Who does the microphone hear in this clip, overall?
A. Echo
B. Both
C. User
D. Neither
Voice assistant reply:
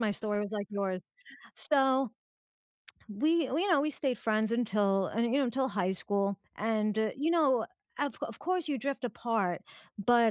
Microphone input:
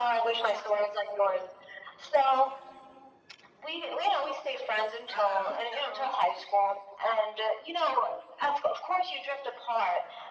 B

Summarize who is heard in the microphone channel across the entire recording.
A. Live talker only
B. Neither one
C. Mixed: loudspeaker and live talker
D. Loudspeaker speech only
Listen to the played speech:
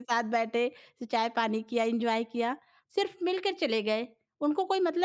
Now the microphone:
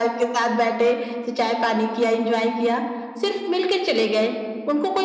D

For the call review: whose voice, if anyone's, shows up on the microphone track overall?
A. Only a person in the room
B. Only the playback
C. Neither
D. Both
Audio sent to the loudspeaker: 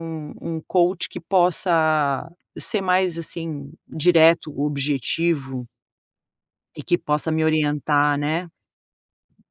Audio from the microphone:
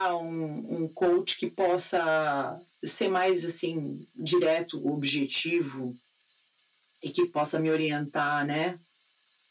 B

